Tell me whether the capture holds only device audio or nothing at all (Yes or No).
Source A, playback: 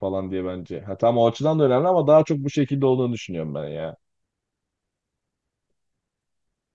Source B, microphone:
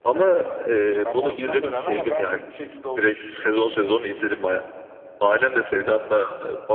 No